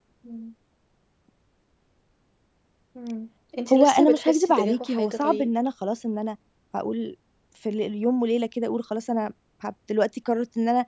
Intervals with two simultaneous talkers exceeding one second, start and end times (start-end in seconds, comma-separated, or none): 3.7-5.5